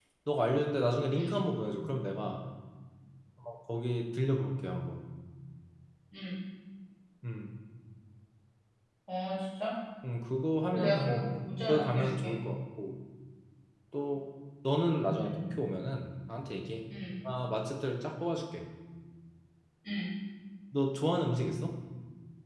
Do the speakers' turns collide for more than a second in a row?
Yes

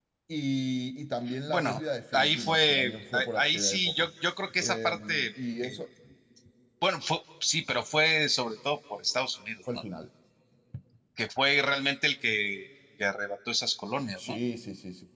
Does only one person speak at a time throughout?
No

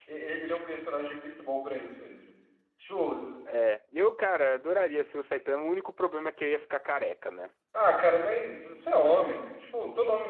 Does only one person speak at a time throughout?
Yes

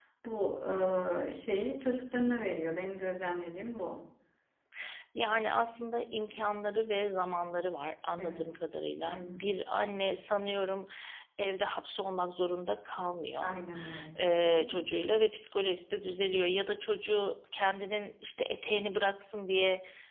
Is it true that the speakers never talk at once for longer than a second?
Yes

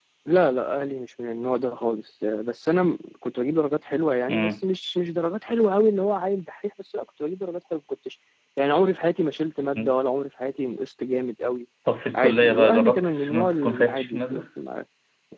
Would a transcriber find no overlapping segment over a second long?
No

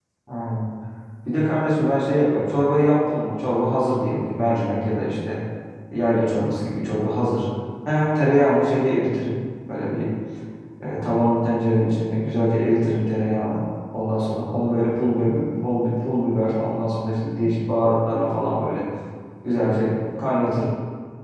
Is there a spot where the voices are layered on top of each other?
No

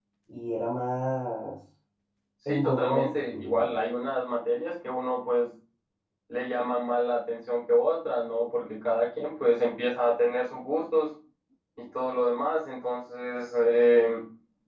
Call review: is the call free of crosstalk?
No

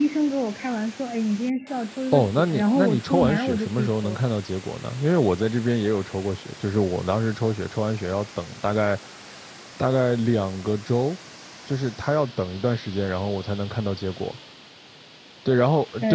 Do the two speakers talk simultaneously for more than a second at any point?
Yes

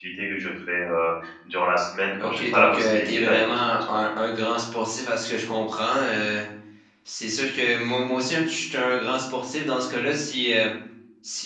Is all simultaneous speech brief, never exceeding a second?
No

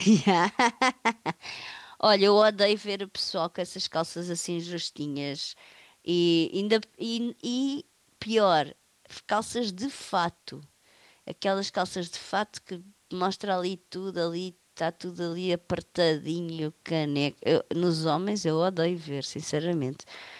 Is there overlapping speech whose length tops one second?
No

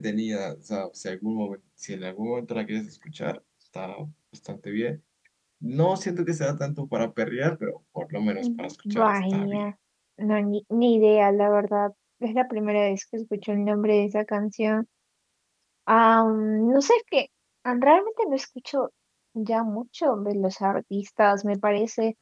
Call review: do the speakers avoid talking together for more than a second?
No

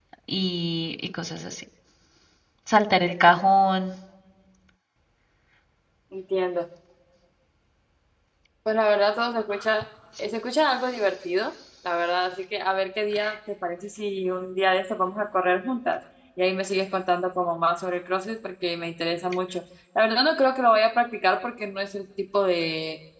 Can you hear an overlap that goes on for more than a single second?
No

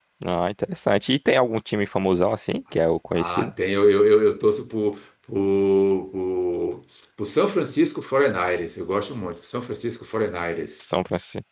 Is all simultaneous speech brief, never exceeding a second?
Yes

